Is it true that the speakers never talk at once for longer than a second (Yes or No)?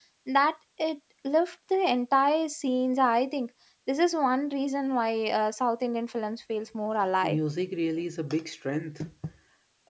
Yes